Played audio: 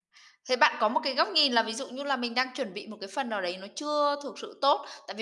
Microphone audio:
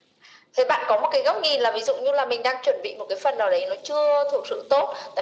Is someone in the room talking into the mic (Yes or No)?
No